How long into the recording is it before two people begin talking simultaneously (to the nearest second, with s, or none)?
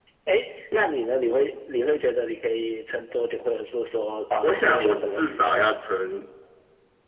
4 s